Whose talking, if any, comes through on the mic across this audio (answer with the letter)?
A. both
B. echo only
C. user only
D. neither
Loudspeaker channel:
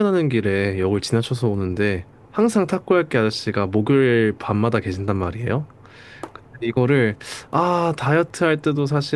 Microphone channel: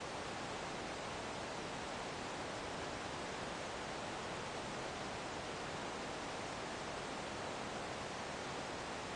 D